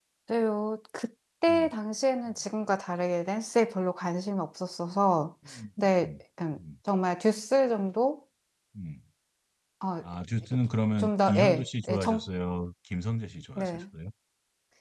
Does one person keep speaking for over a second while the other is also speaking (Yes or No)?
Yes